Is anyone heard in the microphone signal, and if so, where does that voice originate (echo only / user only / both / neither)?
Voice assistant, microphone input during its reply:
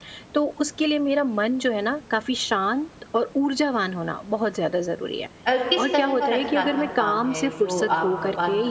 both